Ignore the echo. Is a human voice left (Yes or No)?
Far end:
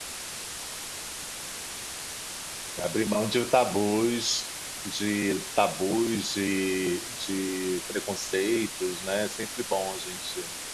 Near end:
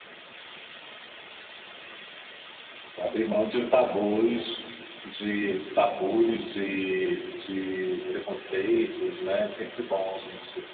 No